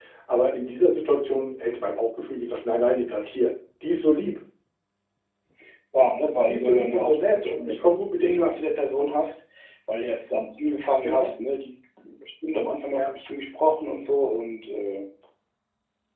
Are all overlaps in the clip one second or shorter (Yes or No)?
No